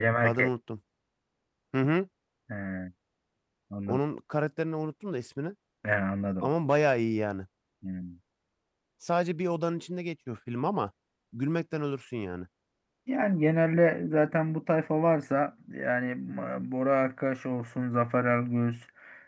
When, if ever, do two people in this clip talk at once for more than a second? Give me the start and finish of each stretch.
none

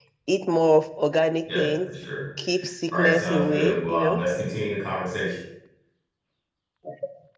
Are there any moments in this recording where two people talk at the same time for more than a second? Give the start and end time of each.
2.9-4.2

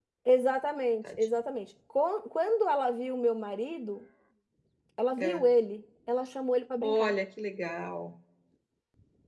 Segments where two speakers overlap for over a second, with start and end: none

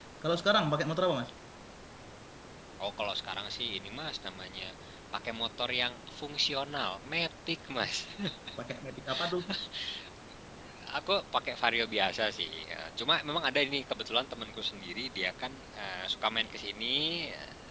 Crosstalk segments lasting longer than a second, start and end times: none

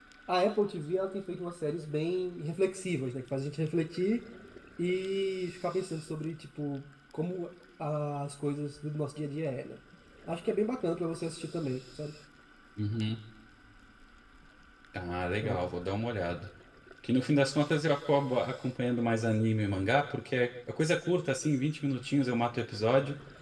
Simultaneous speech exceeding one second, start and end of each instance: none

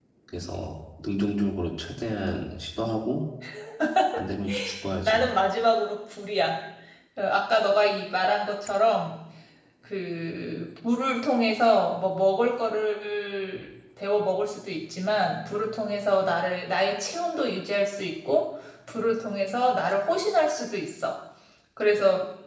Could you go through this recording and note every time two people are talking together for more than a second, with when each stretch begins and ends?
none

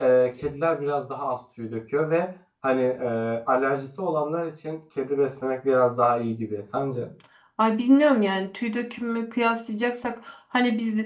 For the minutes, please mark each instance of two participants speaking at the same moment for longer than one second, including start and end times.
none

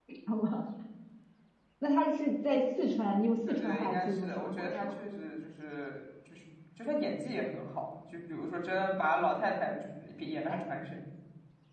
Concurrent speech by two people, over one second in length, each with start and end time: 3.5-5.0

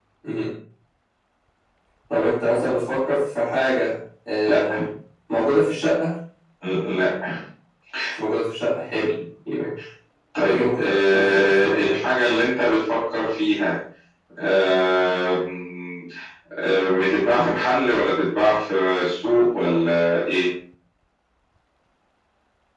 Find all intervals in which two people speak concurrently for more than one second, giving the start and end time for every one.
10.4-12.0

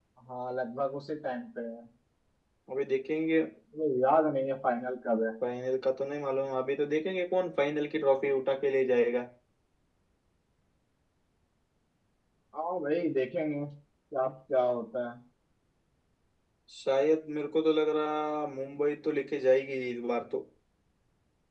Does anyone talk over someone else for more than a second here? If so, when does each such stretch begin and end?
none

